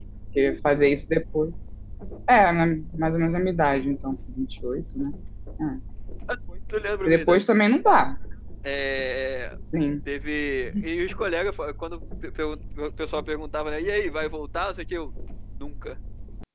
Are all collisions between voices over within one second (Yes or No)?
Yes